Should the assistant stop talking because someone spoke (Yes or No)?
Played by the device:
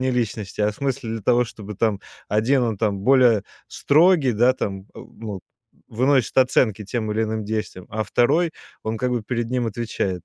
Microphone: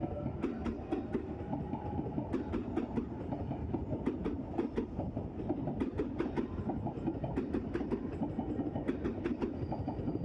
No